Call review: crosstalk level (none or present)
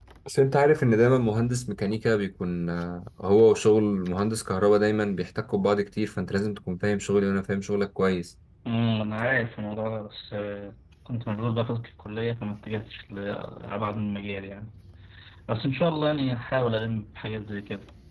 none